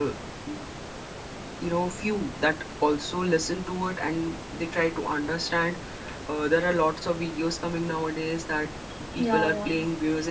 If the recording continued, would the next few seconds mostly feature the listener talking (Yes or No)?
No